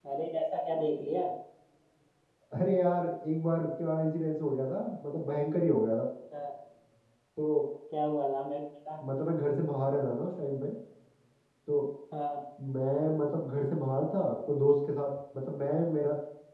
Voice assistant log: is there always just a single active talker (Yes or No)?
Yes